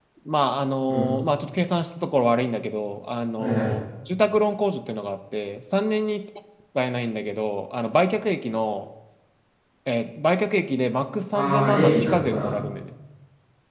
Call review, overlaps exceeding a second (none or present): present